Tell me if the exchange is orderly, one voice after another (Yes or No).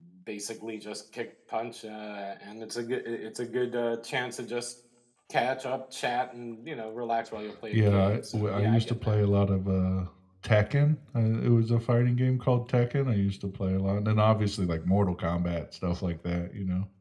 No